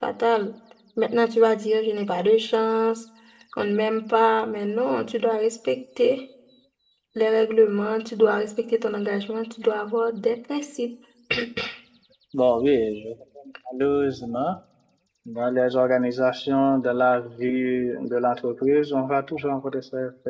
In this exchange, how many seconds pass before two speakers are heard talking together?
none

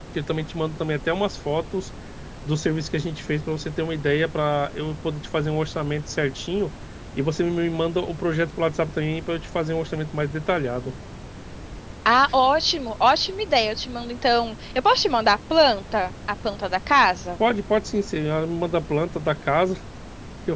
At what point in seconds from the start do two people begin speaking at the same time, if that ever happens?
none

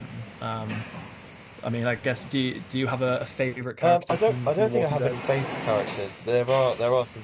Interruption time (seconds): 3.8 s

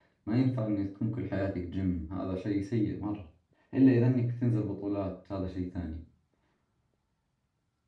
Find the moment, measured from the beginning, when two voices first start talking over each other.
none

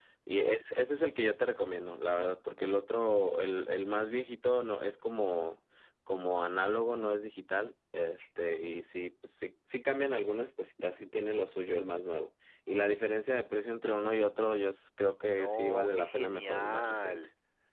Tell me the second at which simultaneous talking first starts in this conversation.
15.3 s

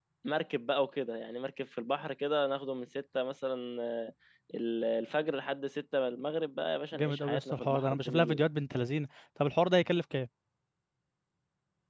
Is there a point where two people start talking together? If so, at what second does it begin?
6.9 s

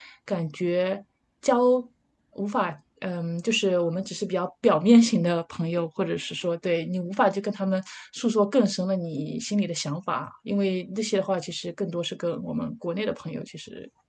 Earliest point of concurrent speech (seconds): none

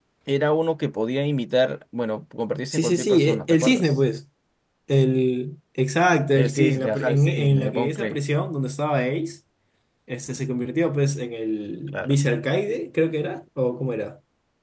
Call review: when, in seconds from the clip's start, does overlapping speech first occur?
2.7 s

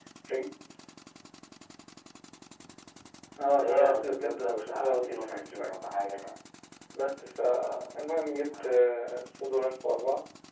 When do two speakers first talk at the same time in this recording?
3.6 s

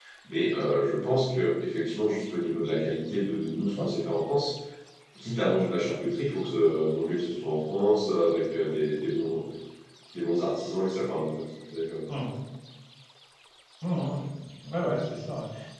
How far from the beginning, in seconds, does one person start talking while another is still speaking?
none

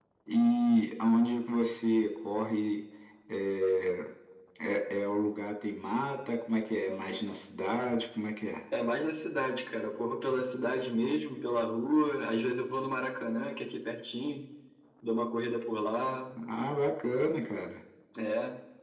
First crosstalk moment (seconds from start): none

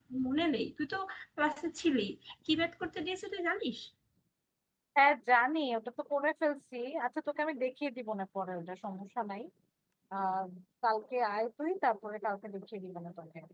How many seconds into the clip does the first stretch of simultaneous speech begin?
none

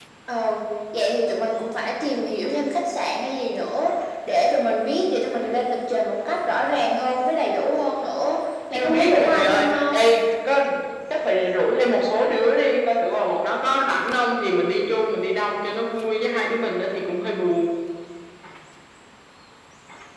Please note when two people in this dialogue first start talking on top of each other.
8.7 s

